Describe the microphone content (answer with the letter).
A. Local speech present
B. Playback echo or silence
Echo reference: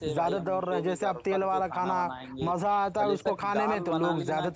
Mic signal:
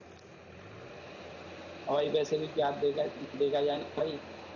A